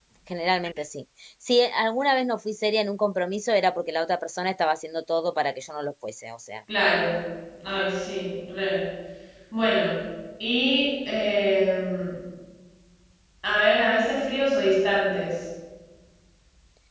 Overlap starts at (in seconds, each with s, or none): none